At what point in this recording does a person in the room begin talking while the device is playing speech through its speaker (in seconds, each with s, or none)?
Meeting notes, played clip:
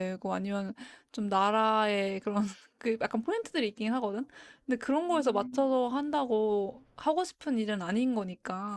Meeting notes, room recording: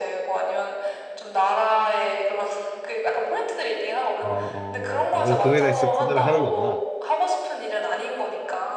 4.2 s